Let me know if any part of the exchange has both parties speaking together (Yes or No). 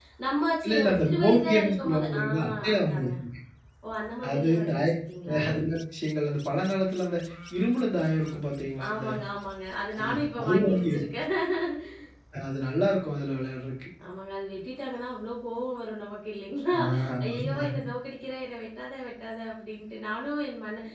Yes